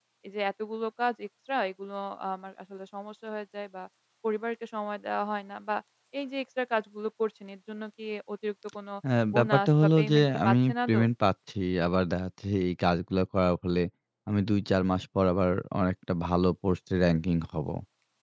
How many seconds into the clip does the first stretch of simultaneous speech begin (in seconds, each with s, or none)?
9.3 s